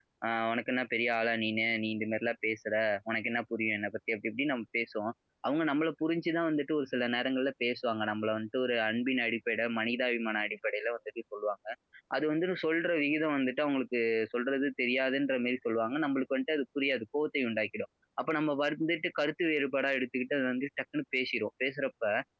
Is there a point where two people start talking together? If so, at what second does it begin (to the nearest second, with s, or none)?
none